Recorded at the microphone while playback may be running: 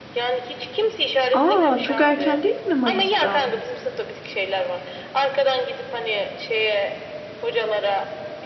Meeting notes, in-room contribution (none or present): present